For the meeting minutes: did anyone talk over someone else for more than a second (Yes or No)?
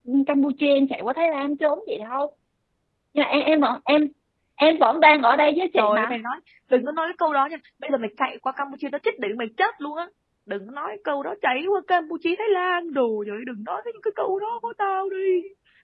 No